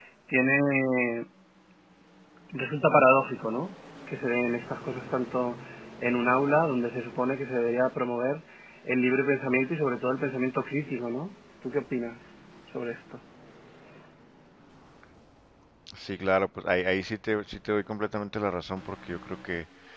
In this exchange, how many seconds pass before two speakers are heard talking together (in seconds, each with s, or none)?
none